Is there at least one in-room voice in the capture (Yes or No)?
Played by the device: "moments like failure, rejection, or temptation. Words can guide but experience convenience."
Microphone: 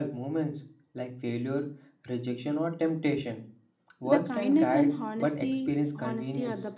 Yes